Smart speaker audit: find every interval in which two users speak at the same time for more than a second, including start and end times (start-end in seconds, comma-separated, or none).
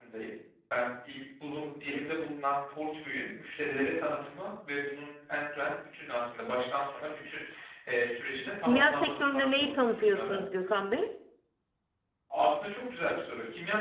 8.6-10.2